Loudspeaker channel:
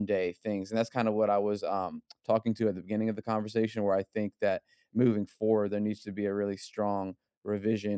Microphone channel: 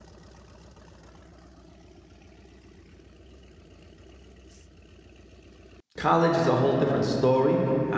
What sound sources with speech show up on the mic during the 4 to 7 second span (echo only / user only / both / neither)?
user only